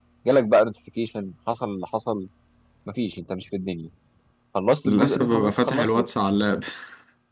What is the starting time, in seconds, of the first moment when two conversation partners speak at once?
4.8 s

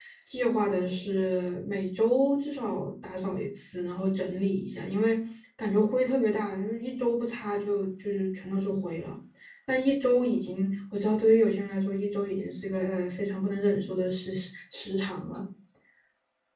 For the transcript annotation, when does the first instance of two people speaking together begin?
none

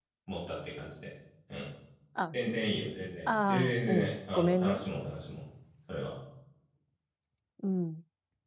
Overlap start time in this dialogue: 3.3 s

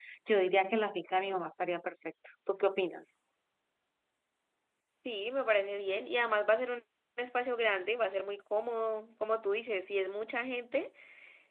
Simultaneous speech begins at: none

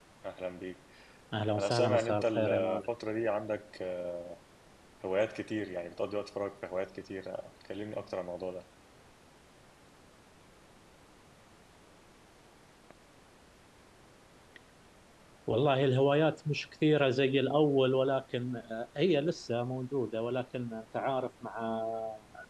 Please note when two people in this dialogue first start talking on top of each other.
1.6 s

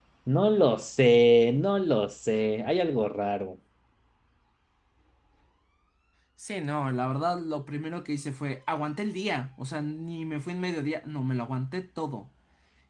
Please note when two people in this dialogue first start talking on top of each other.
none

